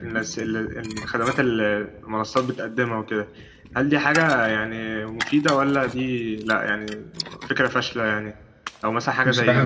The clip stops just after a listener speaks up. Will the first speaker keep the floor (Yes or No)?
Yes